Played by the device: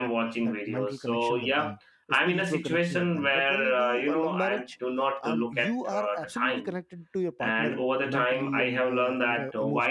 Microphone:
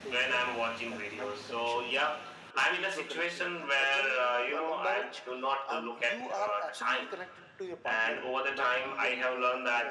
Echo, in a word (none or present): present